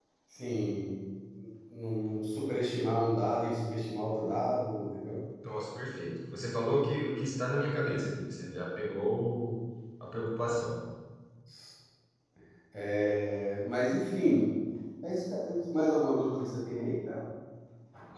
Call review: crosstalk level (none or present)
none